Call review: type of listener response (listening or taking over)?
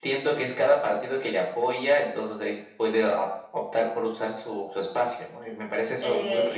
taking over